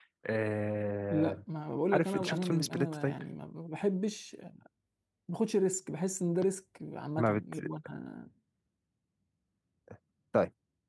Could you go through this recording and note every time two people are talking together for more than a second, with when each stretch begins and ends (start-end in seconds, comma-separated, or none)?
1.9-3.1